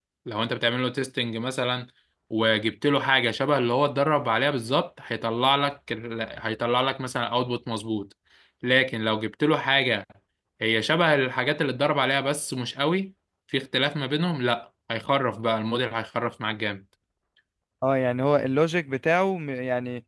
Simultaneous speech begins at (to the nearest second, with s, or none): none